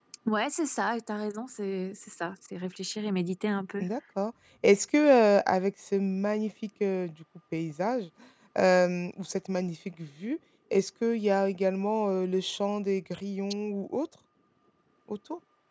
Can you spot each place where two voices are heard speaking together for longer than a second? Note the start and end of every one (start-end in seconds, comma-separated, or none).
none